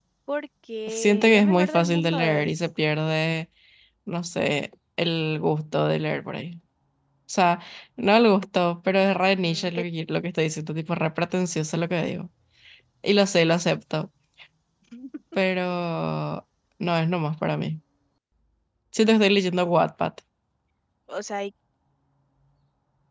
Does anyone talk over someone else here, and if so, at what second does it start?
0.9 s

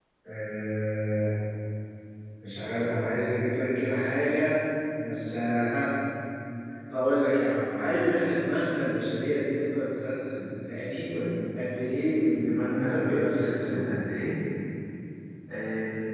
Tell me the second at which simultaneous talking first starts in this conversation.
12.4 s

